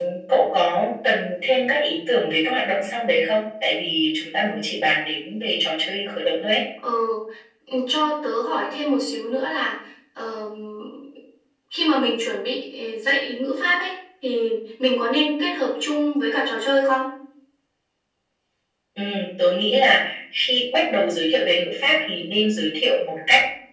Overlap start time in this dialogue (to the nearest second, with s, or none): none